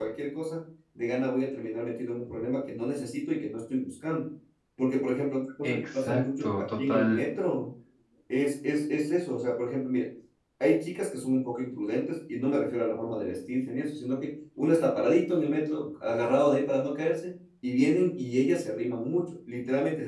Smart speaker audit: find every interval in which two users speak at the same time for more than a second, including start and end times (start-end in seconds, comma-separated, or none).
5.6-7.2